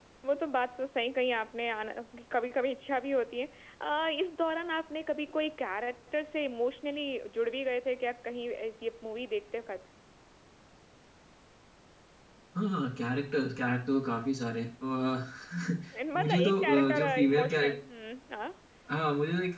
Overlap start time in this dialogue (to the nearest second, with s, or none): 16 s